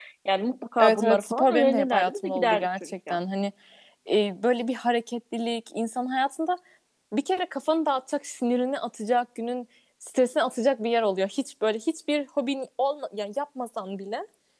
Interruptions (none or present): present